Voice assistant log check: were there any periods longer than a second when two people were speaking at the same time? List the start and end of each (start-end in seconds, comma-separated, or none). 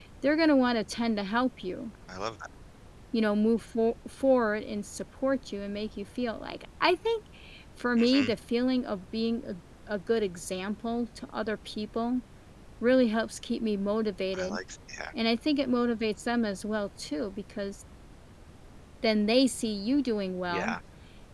none